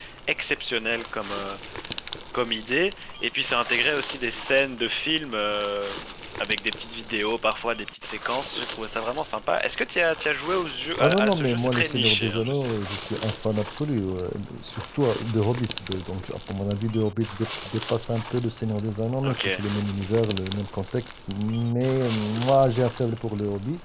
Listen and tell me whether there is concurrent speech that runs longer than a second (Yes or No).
Yes